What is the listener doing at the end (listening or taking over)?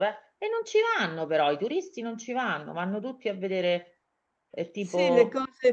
taking over